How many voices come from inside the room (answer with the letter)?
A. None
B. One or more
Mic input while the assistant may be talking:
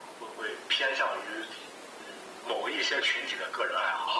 A